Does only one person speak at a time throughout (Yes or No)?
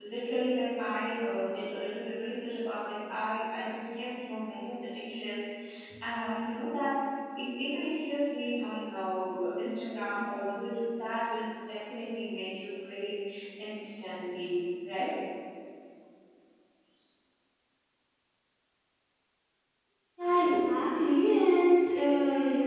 Yes